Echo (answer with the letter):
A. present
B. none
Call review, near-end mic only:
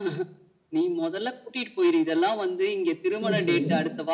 A